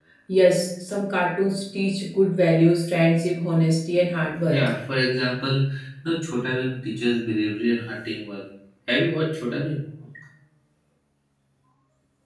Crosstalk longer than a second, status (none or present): none